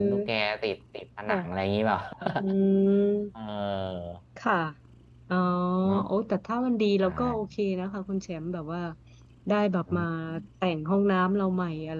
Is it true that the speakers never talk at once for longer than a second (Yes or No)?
Yes